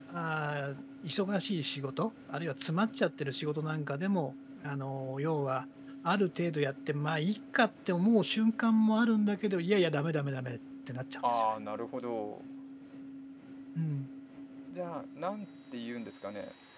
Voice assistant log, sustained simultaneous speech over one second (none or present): none